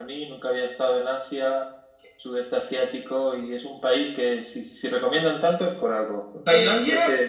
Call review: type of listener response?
taking over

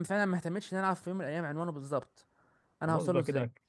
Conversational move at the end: taking over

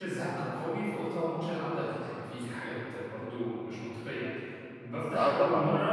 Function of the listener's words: listening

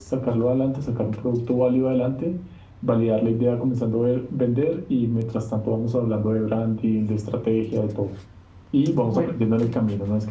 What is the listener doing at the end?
listening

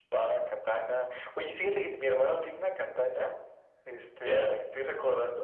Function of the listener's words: listening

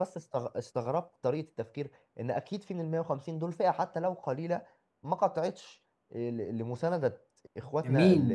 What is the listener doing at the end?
taking over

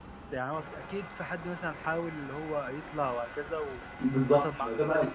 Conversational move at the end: taking over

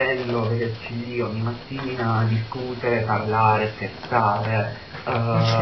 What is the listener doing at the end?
listening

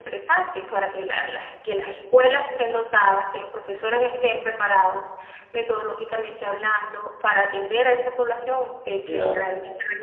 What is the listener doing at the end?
taking over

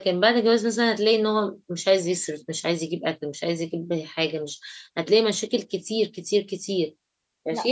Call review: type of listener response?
taking over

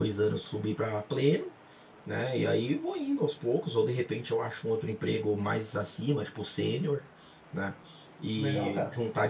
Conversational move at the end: listening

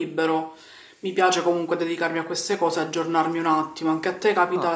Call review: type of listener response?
taking over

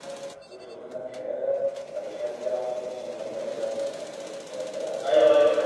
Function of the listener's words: taking over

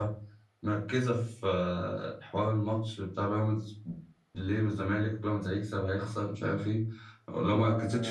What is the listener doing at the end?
taking over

